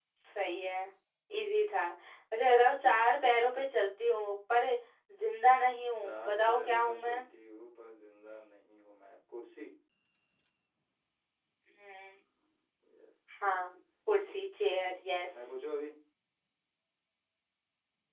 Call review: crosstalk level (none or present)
present